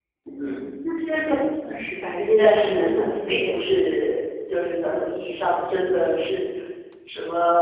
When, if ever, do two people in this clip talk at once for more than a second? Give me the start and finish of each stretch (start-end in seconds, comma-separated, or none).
2.4-3.6